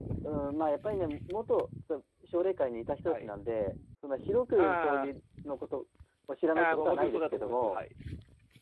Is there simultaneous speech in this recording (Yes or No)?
Yes